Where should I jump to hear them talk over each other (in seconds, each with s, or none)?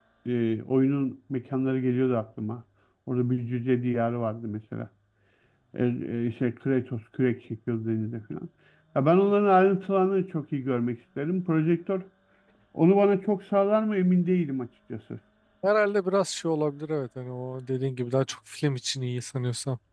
none